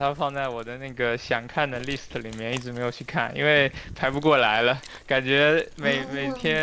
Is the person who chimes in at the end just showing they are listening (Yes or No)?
Yes